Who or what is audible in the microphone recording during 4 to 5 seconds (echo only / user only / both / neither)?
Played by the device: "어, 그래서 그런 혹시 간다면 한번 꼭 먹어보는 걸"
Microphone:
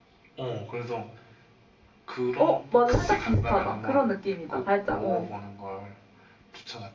both